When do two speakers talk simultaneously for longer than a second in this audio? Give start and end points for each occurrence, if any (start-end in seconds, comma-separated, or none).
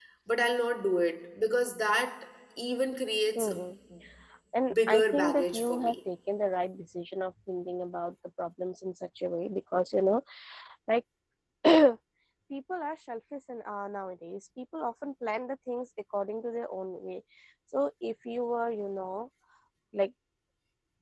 4.7-6.0